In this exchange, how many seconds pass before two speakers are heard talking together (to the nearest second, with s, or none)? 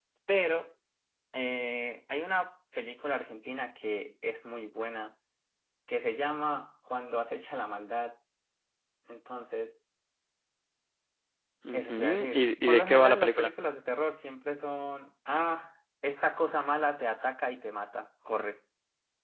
12 s